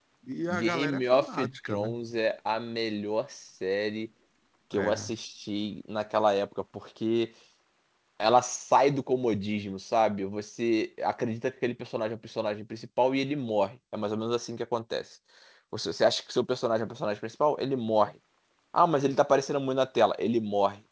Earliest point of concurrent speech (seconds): 1 s

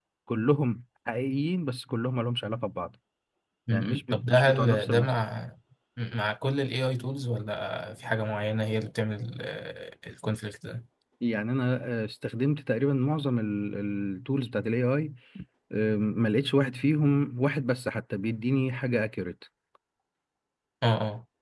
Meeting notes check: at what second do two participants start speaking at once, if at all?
4 s

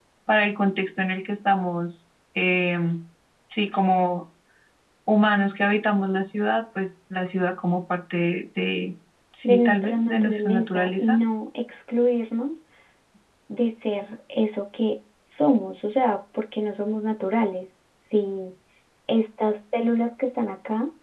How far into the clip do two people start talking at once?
9 s

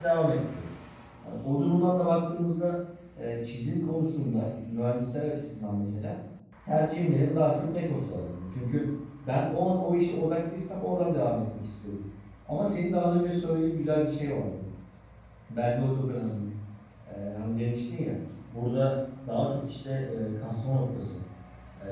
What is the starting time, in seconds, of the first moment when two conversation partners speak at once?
none

